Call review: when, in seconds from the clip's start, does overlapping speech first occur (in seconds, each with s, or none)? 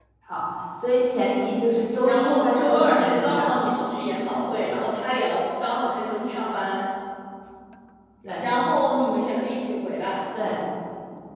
2.0 s